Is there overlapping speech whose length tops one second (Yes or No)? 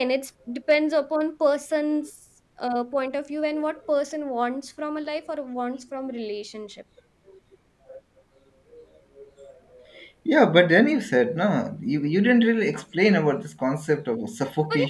No